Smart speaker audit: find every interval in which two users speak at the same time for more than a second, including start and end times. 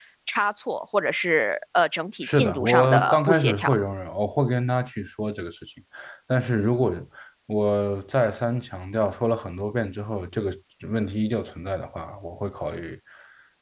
2.2-3.7

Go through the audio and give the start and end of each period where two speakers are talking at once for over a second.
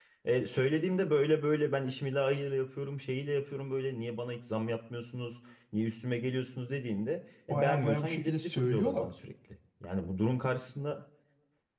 7.5-9.1

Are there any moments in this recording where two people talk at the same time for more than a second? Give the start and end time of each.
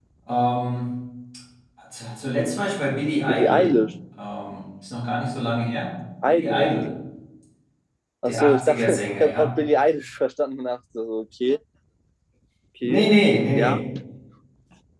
8.3-9.5

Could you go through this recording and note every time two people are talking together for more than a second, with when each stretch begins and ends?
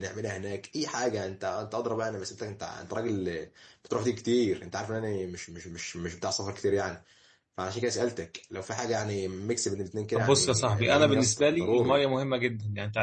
10.1-12.0

